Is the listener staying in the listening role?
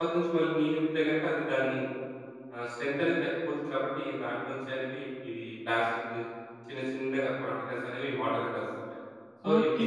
No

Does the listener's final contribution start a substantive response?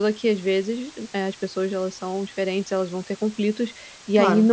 No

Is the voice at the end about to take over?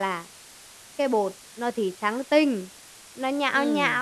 No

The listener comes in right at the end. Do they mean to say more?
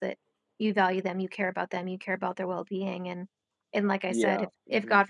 No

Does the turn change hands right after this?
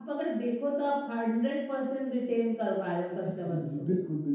Yes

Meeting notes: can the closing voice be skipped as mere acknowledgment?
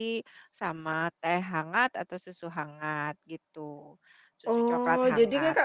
No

